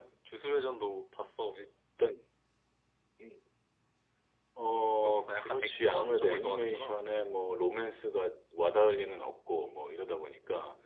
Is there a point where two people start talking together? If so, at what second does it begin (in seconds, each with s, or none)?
5.0 s